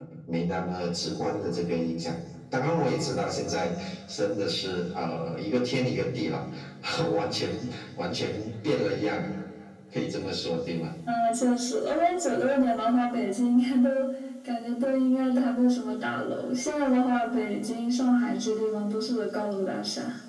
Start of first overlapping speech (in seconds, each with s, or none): none